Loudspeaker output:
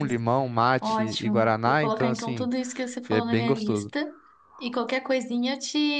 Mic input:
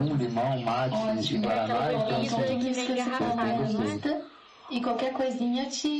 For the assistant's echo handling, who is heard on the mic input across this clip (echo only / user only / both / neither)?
both